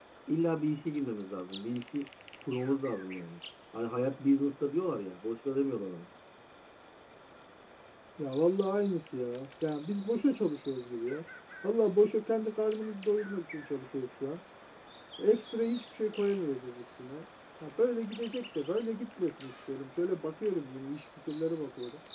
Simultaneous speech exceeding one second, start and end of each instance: none

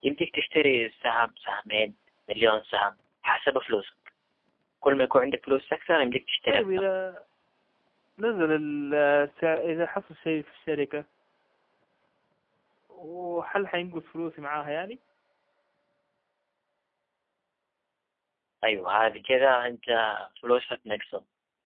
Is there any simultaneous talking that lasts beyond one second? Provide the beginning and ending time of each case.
none

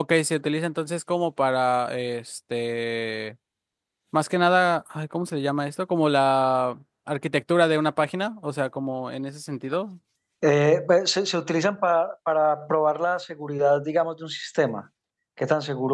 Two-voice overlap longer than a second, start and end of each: none

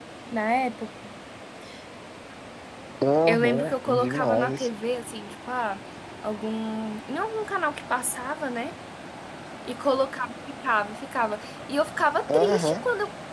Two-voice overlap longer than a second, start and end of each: 3.3-4.7

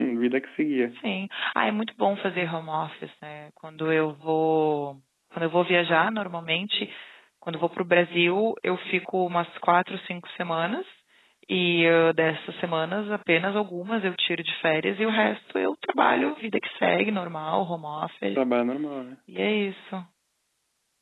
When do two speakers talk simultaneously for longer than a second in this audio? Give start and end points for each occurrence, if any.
none

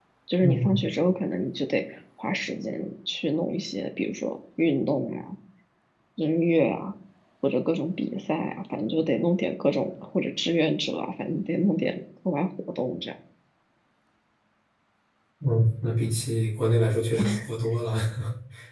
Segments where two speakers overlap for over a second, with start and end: none

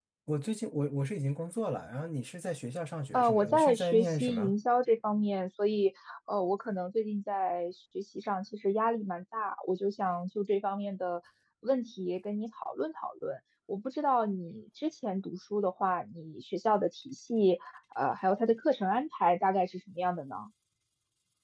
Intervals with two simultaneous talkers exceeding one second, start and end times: 3.1-4.5

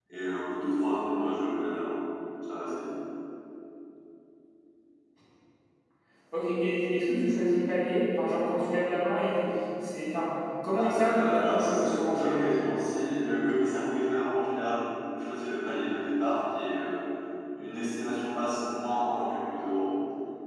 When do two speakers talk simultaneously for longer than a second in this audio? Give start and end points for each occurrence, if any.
10.7-12.5

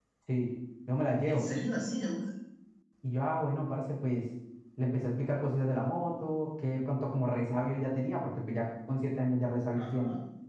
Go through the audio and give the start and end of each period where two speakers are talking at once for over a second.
none

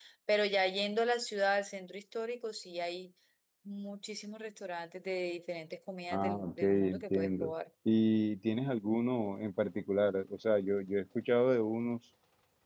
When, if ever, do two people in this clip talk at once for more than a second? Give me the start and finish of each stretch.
6.1-7.5

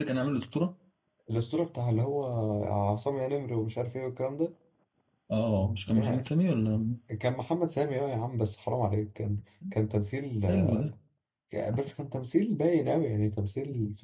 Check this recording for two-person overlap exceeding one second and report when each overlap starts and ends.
none

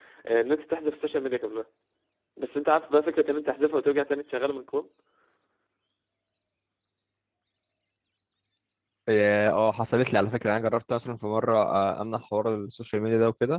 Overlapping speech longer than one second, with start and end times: none

